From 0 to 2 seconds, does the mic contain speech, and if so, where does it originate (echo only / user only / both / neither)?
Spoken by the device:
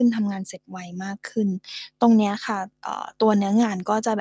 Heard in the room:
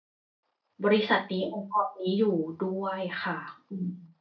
user only